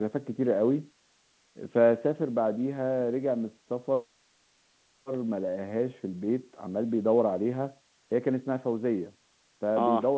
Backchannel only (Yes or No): Yes